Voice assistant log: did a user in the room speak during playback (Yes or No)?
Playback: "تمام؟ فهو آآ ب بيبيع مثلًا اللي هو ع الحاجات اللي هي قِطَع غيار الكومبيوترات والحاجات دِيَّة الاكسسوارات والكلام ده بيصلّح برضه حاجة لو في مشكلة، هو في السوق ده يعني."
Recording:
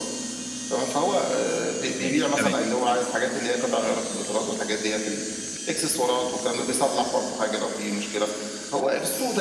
Yes